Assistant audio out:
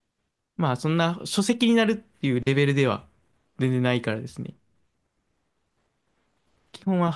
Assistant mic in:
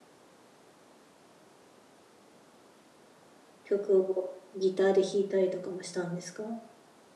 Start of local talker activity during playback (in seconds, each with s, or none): 3.6 s